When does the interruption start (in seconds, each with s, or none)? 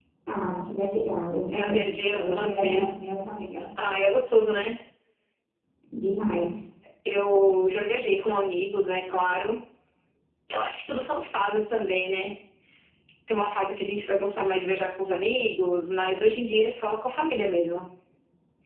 1.5 s